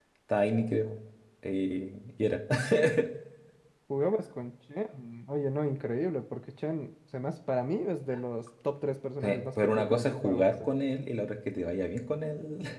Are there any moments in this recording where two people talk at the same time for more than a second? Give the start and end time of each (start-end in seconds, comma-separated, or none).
9.2-10.5